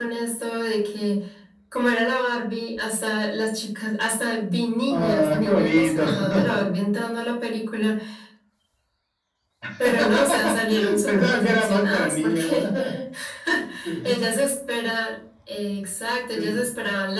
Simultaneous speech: Yes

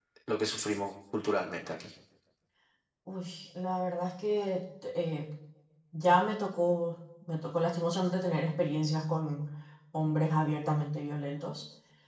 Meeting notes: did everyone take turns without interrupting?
Yes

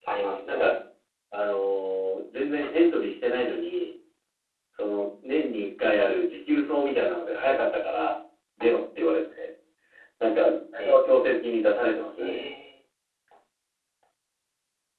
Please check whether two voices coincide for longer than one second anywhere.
No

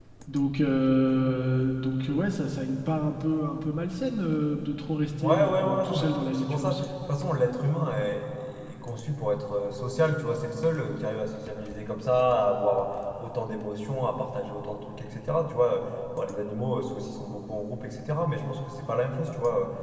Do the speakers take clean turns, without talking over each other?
No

